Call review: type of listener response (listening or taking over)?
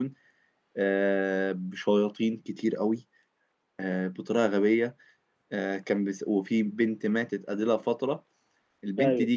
listening